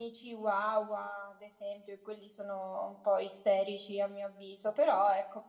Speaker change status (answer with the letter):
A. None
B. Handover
A